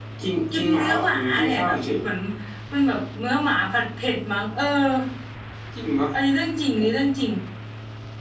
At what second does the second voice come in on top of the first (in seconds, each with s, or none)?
0.5 s